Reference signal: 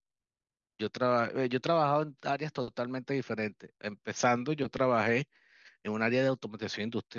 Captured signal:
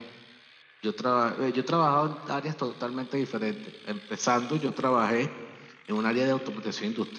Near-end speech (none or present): none